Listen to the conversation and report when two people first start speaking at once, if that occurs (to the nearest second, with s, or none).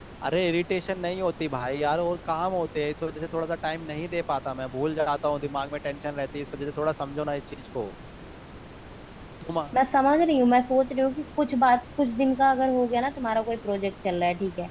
none